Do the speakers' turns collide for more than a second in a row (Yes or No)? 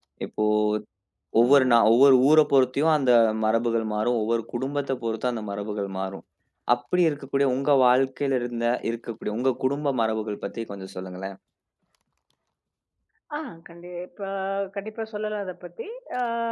No